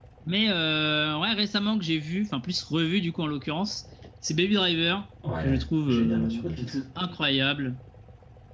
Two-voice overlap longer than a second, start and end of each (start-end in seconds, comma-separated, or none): 5.4-6.8